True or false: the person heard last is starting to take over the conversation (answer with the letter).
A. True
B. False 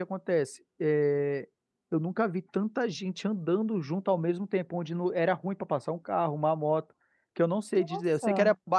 B